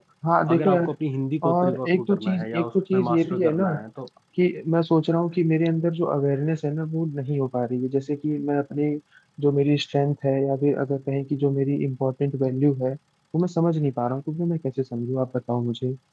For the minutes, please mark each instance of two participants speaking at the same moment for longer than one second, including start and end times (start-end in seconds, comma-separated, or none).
1.4-3.6